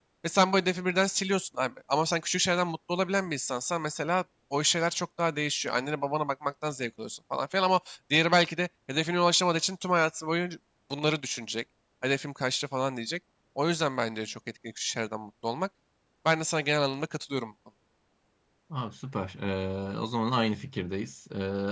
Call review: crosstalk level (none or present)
none